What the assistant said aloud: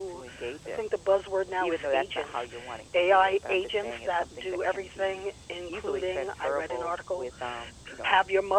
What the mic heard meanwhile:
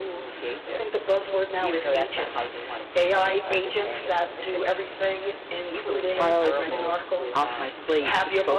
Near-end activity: present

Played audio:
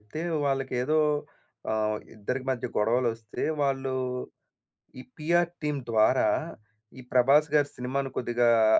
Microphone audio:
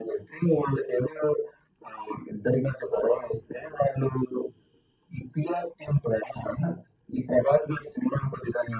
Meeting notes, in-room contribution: none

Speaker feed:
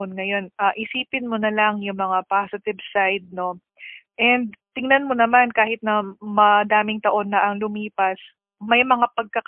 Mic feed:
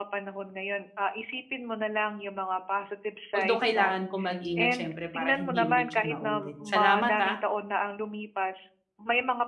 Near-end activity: present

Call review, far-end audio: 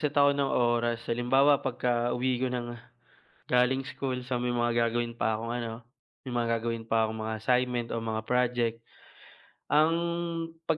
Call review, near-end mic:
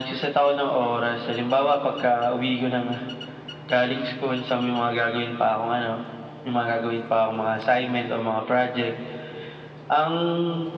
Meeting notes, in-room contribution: none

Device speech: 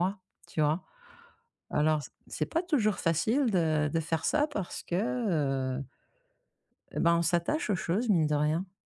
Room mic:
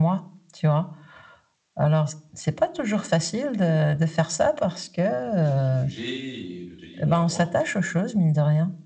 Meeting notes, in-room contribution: present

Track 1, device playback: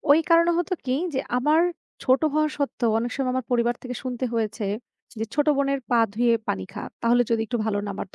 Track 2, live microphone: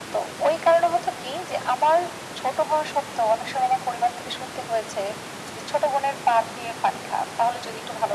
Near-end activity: none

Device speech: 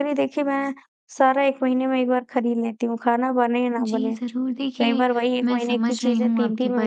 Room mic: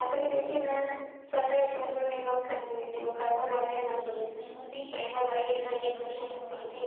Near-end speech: none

